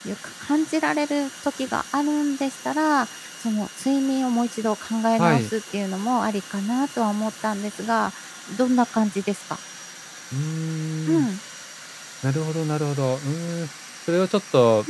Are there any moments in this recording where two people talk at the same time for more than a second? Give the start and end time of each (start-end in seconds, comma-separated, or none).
none